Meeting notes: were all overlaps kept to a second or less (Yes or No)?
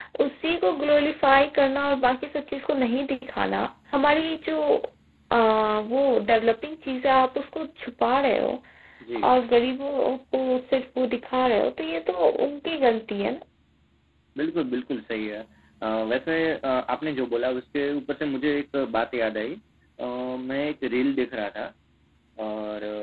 Yes